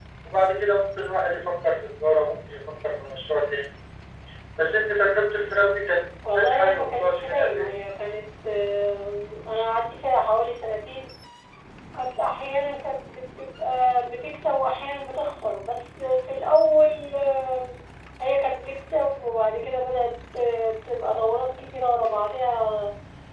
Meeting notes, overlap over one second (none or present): present